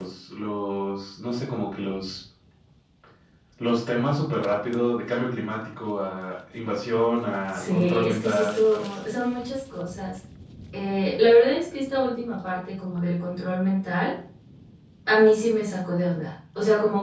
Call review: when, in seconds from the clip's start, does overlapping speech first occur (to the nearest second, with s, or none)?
8 s